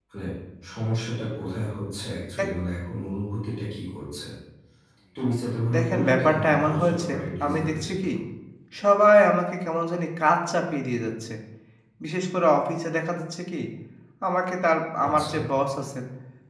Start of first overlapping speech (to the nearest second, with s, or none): 6 s